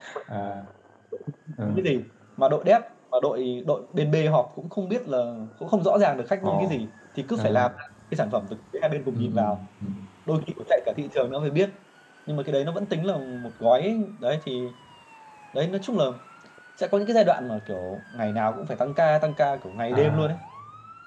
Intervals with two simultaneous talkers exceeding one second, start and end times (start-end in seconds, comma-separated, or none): none